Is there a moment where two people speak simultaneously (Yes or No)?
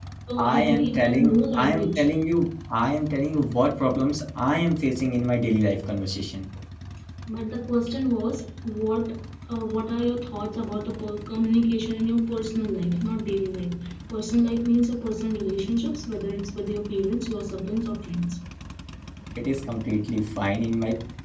Yes